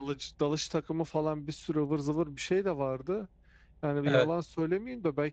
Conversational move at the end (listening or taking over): listening